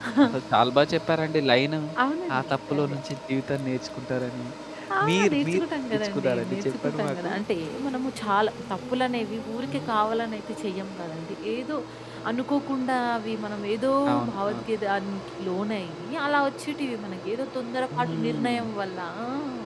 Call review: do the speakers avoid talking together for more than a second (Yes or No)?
No